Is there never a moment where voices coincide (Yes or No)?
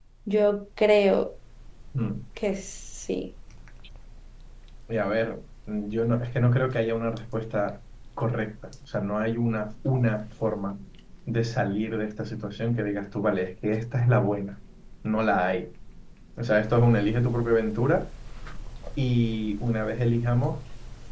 Yes